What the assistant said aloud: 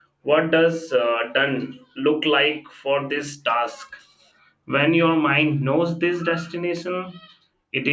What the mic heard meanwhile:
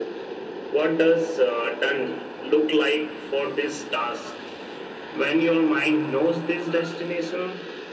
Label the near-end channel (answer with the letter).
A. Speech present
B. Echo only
B